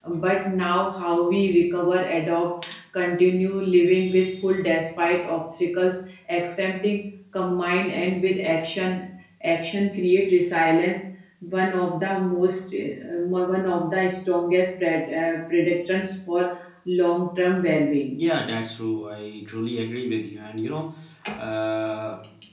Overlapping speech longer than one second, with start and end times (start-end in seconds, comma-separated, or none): none